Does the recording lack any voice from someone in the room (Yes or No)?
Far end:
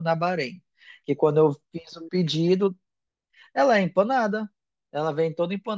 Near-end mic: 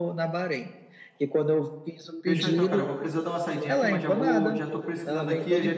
No